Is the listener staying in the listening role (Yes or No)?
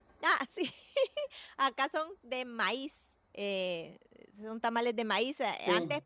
Yes